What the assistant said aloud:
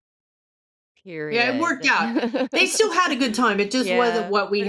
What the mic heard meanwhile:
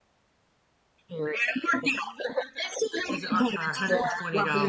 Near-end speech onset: 3.1 s

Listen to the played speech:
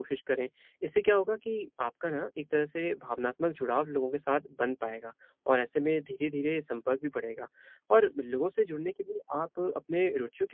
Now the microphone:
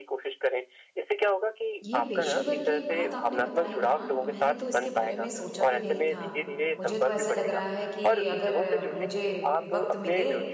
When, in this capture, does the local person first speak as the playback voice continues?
1.8 s

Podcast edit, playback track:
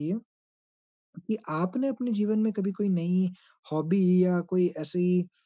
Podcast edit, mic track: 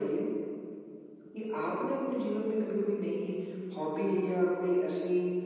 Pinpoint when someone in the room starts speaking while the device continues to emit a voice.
none

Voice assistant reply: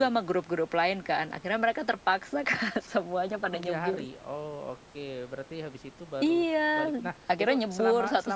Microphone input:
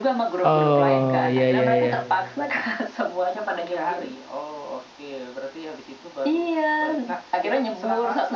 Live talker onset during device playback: 0.4 s

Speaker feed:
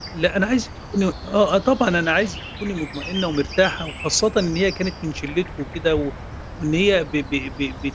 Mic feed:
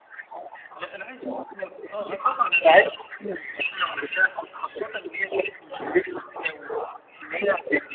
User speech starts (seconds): none

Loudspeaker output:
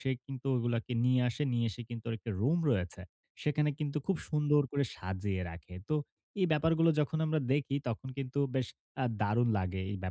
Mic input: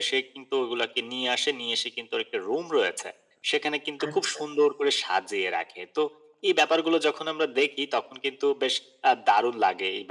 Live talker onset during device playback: 4.1 s

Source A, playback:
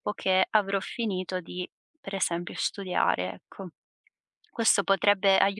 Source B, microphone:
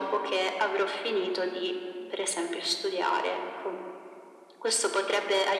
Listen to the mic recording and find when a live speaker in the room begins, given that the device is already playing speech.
none

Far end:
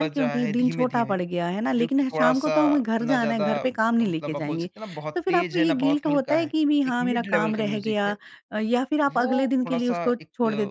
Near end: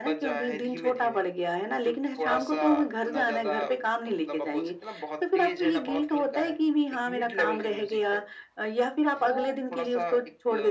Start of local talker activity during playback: none

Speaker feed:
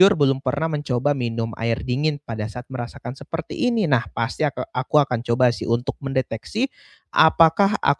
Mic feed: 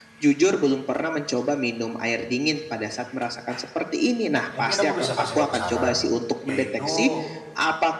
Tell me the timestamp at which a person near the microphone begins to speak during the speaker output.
4.6 s

